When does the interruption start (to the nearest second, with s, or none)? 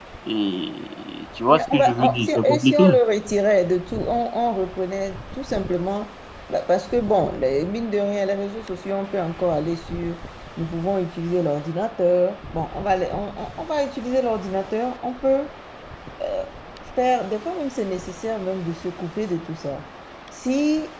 2 s